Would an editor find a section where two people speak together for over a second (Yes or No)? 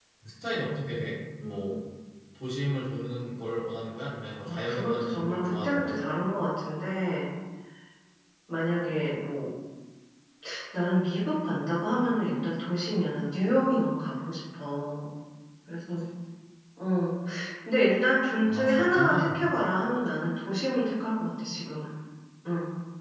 Yes